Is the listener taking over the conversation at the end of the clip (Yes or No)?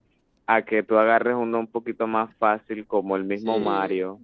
Yes